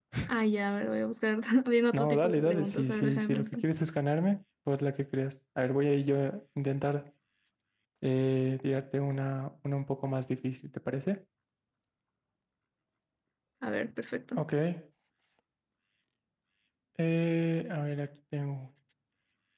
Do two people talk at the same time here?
Yes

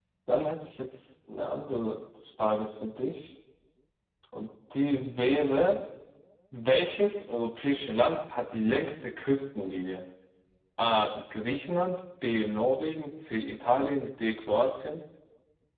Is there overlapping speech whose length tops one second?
No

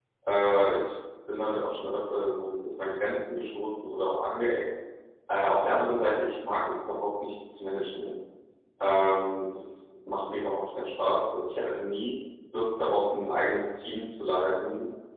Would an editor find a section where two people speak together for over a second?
No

